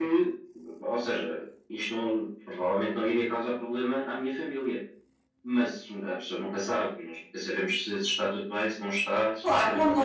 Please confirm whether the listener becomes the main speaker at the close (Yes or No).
Yes